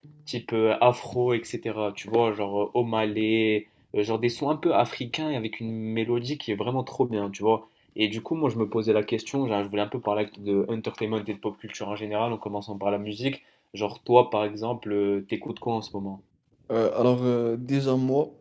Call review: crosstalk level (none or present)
none